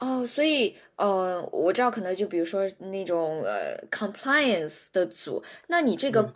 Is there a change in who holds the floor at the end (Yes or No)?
No